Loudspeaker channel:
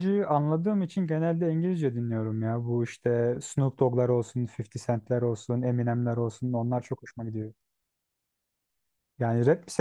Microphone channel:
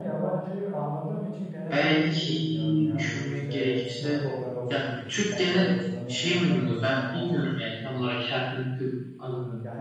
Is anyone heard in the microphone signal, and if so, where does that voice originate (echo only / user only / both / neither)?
both